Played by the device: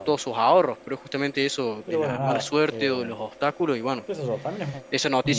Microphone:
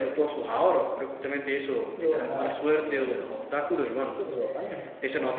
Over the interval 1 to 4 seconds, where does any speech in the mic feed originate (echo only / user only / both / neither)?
echo only